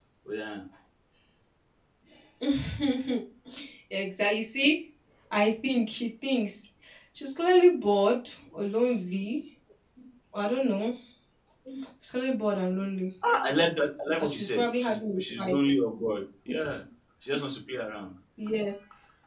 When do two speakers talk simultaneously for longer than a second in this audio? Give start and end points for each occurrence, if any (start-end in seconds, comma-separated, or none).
14.2-15.6